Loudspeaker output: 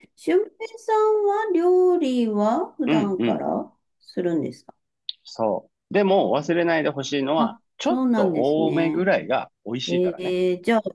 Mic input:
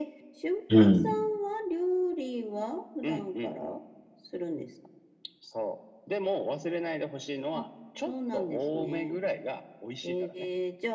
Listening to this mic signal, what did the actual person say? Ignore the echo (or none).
うん。